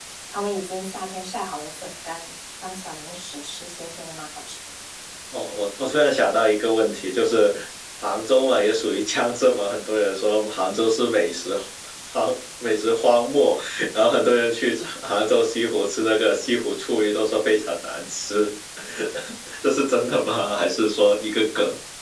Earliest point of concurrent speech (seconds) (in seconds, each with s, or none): none